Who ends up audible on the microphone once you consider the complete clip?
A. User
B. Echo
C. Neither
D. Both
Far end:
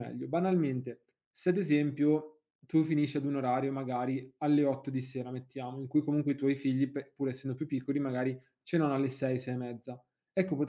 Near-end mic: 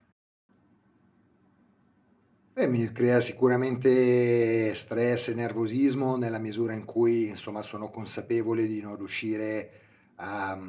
A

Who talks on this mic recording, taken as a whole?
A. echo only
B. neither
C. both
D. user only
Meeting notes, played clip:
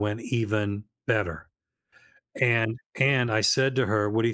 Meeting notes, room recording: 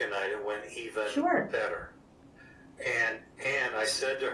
C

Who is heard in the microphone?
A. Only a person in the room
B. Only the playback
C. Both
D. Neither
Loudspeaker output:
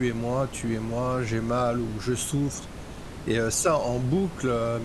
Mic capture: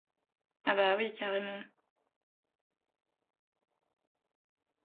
A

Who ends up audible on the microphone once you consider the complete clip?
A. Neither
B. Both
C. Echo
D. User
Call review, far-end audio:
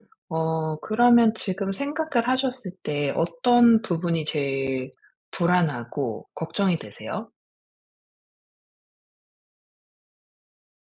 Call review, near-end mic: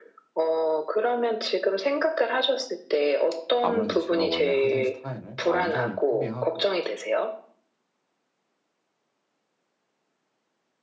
B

